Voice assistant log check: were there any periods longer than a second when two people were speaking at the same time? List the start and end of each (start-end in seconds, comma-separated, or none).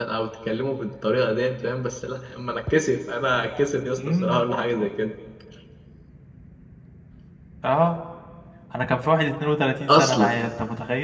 none